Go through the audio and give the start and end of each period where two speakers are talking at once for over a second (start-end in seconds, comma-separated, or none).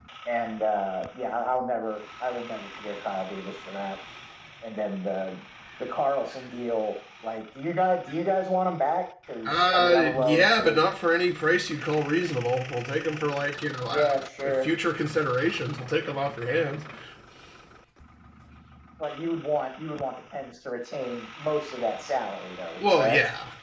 9.5-10.8